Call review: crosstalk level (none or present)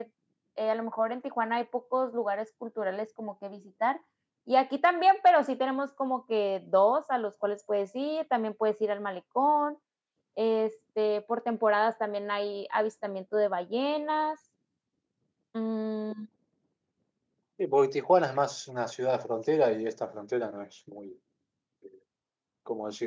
none